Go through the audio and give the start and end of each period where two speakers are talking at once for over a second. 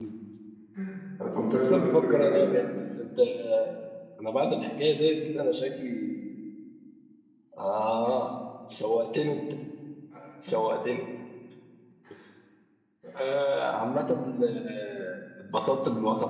1.2-2.6

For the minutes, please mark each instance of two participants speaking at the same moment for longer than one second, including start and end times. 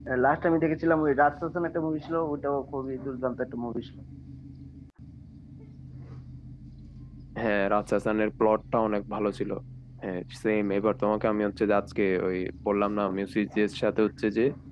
none

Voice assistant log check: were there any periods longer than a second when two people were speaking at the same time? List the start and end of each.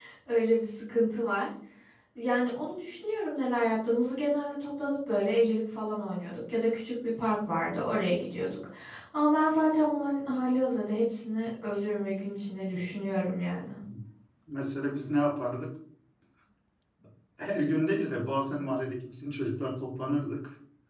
none

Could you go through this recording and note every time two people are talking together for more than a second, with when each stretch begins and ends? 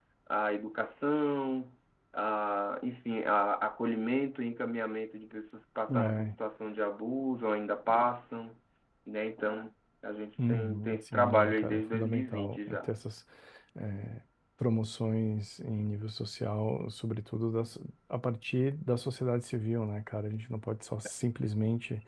10.5-12.9

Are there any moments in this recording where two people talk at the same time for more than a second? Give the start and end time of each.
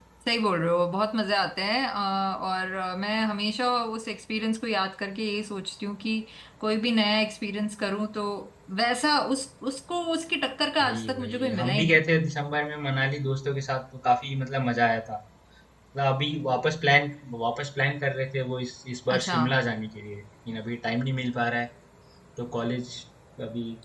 10.8-12.0

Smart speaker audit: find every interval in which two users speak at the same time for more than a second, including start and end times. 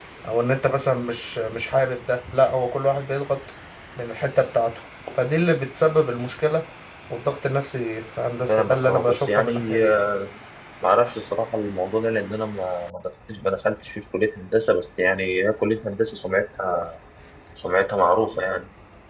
8.5-10.1

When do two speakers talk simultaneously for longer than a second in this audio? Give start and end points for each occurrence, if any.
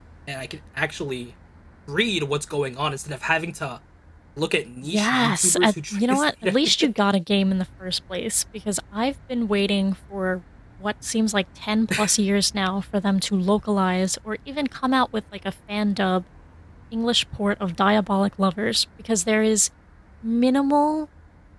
4.8-6.9

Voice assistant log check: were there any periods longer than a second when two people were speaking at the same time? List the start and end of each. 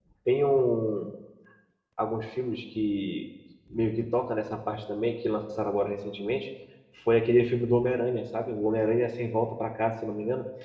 none

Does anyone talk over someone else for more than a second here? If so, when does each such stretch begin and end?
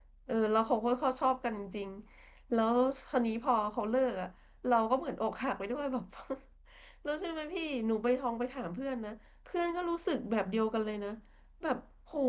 none

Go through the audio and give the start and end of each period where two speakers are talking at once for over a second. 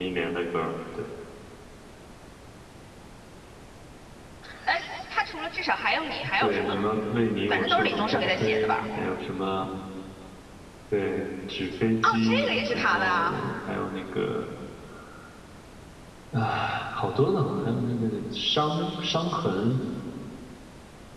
7.5-8.8, 12.0-13.4

